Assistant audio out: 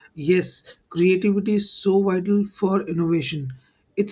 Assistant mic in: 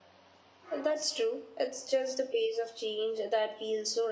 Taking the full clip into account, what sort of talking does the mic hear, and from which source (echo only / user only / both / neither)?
user only